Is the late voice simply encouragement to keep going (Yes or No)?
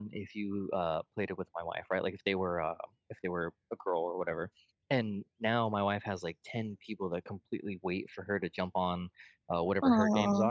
Yes